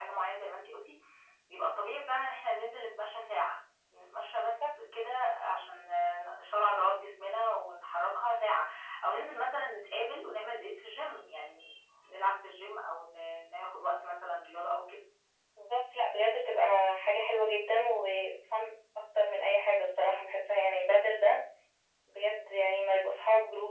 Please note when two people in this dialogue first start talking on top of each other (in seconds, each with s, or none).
none